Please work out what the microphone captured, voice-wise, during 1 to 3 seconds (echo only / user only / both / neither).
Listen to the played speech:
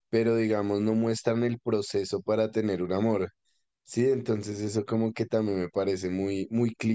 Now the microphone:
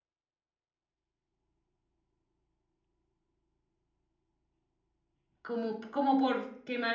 neither